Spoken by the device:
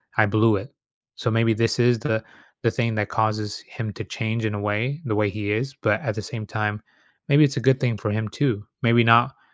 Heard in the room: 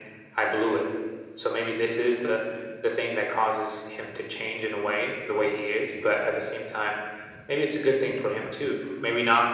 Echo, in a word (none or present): present